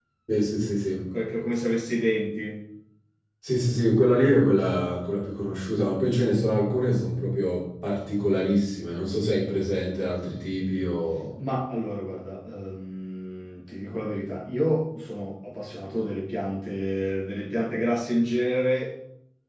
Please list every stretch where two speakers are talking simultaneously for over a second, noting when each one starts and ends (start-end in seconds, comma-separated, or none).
none